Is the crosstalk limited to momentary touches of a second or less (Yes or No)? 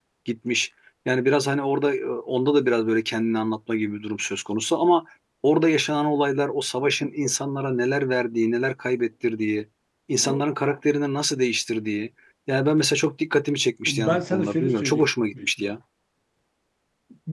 No